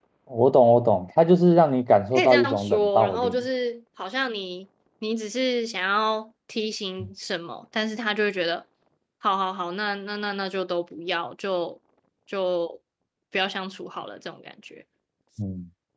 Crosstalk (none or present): present